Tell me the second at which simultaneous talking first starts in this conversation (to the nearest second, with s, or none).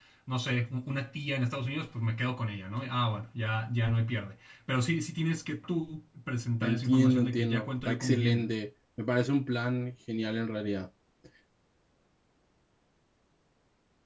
7 s